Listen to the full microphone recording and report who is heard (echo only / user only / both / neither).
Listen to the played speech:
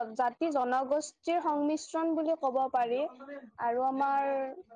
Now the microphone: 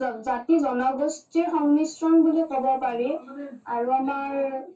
echo only